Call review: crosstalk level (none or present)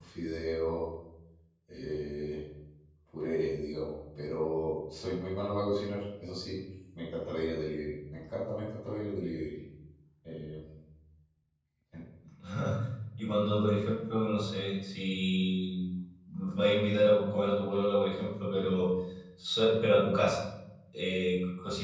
none